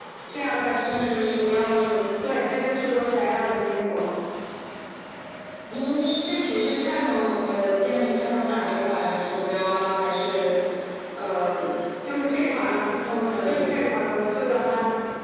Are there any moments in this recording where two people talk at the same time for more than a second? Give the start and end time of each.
none

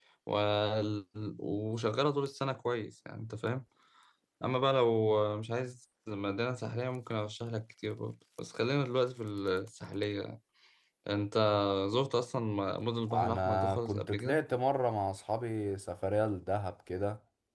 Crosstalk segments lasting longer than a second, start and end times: 13.1-14.4

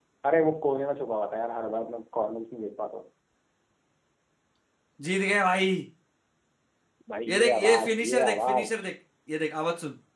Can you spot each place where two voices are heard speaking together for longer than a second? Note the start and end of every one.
7.3-8.8

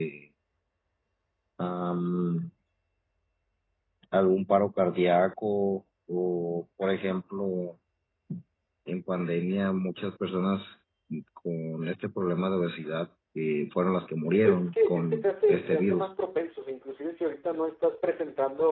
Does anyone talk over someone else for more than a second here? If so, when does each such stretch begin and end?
14.3-16.1

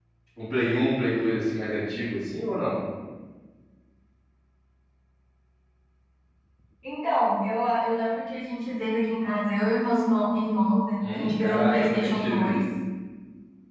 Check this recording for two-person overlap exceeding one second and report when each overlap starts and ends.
11.1-12.5

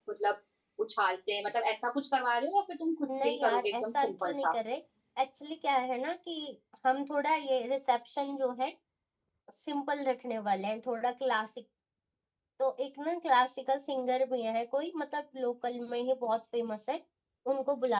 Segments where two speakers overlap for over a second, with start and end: 3.1-4.5

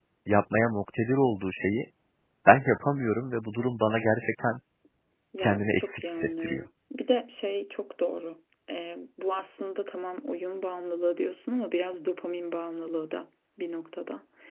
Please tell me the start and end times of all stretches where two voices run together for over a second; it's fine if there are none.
5.4-6.6

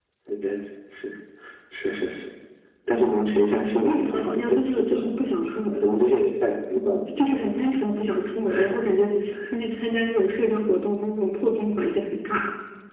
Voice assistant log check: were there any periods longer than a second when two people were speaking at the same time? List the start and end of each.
3.8-5.2

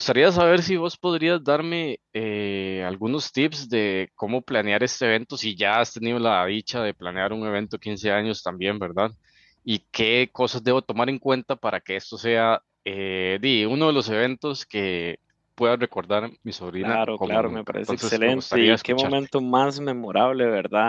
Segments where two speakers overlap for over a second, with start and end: 16.8-19.1

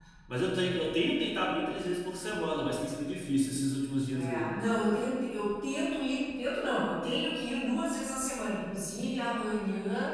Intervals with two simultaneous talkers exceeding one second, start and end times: none

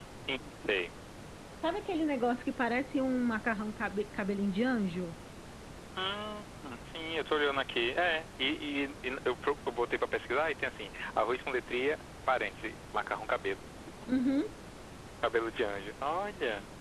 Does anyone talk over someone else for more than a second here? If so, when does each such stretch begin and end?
none

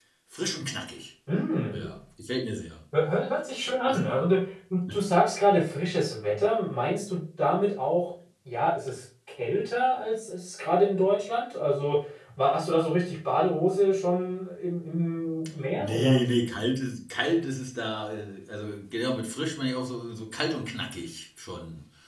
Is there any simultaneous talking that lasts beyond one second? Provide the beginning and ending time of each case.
none

